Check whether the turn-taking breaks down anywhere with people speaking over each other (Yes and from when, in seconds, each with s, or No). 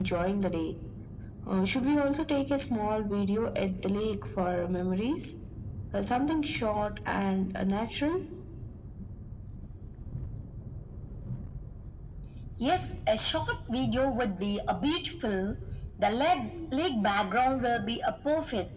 No